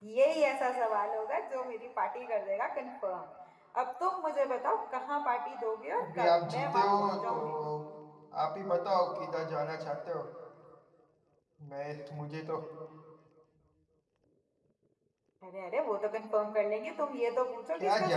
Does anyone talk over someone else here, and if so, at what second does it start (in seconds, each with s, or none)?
6.0 s